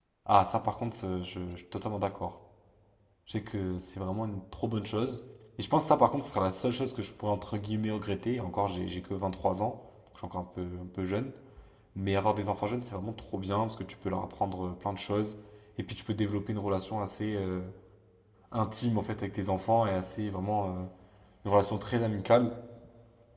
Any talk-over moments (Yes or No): No